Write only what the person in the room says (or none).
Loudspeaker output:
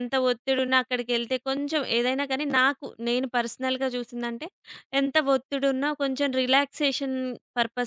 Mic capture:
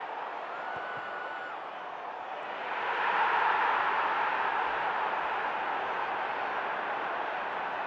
none